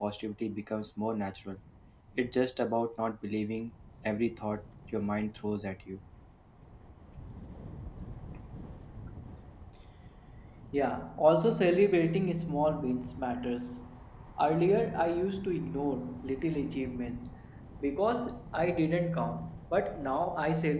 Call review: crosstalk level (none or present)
none